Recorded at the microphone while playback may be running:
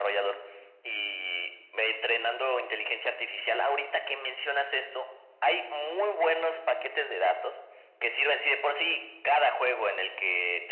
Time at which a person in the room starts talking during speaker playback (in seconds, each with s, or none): none